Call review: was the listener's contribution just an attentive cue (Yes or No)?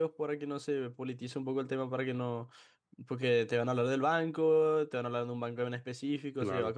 Yes